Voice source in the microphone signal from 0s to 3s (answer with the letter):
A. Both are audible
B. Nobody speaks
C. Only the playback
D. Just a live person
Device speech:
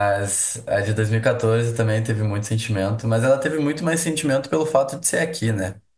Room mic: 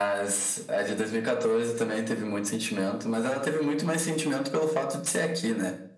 C